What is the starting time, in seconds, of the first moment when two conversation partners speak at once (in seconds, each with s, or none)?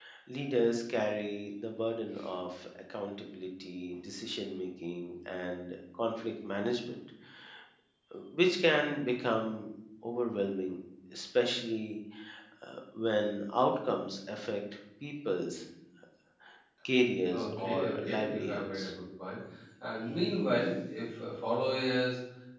17.3 s